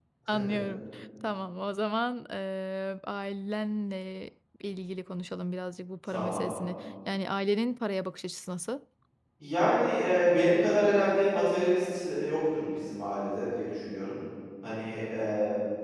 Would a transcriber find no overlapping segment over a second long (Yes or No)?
Yes